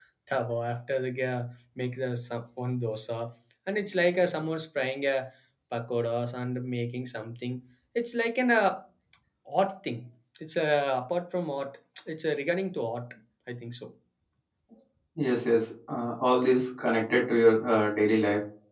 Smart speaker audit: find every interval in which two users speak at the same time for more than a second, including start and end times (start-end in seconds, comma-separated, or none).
none